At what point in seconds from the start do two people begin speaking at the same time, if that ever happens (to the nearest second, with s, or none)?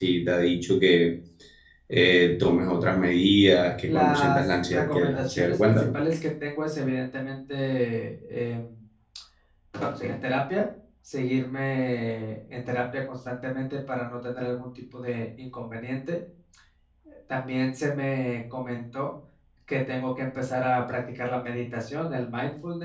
4 s